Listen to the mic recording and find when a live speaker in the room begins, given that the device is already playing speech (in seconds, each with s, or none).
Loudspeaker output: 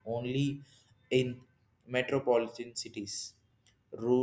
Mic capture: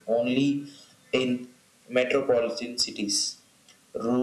none